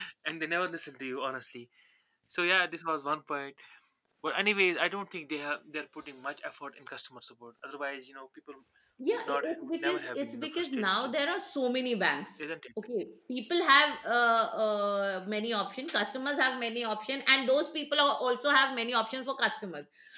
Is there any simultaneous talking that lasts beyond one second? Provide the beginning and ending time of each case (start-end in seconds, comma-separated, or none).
9.1-11.2